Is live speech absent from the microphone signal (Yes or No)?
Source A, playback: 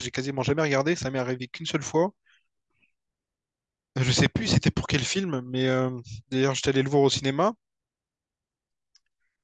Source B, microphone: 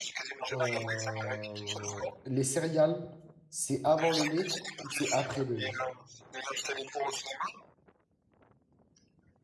No